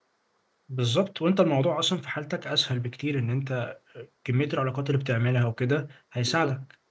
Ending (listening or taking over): taking over